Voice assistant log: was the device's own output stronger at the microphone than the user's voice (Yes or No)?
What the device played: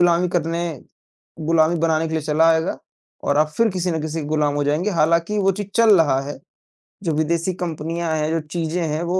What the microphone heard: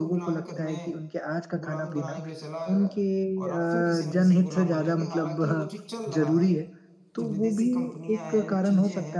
No